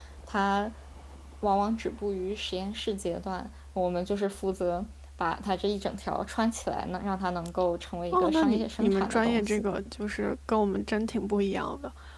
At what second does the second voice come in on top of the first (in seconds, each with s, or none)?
8.1 s